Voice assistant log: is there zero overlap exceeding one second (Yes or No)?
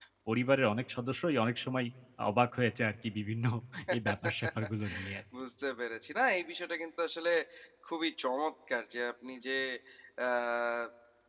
Yes